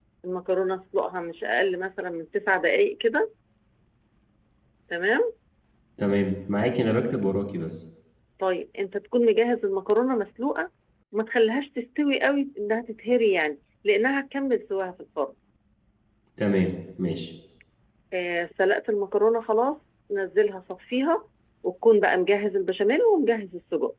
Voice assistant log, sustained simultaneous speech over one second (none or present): none